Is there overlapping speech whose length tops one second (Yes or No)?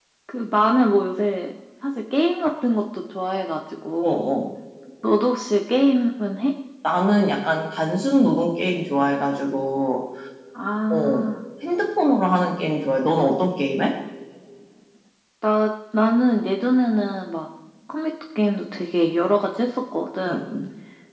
No